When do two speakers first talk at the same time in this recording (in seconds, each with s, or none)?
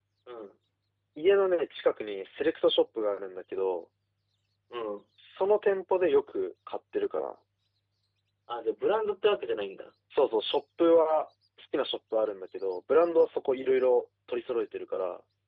none